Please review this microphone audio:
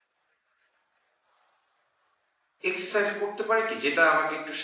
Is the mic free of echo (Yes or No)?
Yes